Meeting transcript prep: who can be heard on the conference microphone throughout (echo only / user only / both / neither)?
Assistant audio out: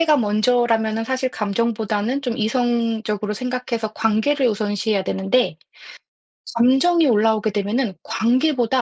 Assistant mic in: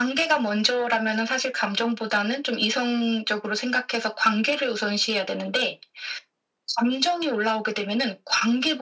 echo only